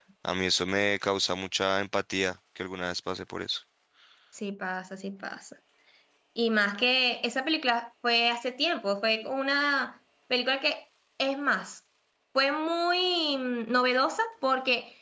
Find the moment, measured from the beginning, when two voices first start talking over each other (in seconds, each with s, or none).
none